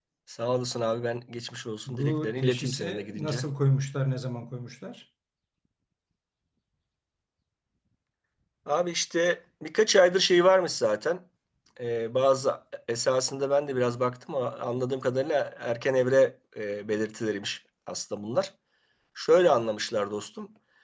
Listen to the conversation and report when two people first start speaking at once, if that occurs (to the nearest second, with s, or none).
2 s